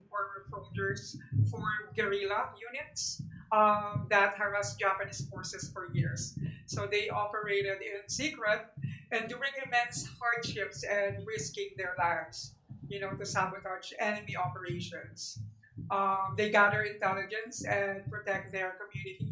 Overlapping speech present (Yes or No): No